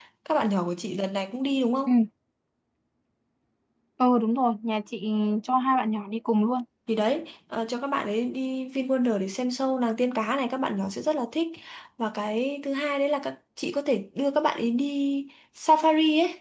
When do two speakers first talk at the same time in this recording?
none

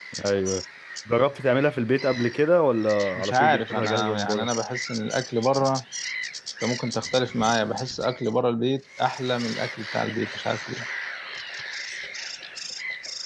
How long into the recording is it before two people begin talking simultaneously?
3.2 s

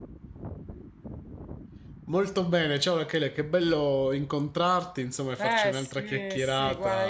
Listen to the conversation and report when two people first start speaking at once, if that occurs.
5.4 s

